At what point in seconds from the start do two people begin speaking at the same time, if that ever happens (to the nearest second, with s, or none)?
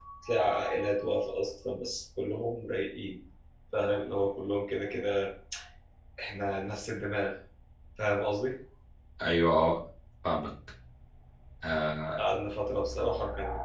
none